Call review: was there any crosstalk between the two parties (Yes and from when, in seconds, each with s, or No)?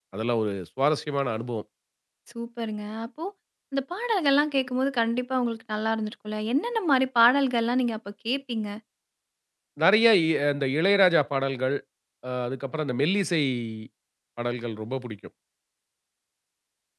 No